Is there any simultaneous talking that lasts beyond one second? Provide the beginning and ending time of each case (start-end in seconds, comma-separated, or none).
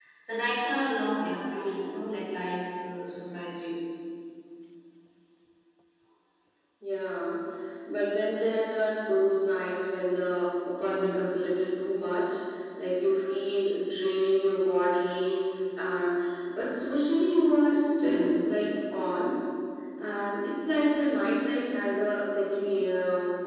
none